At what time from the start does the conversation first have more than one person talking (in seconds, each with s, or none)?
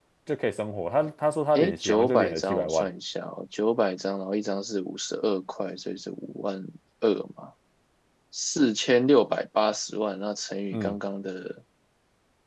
1.6 s